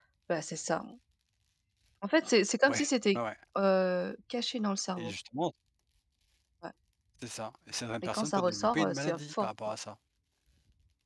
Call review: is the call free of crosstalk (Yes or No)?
No